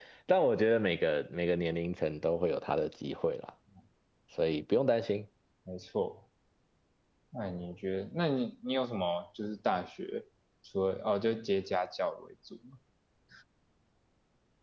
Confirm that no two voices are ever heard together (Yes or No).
Yes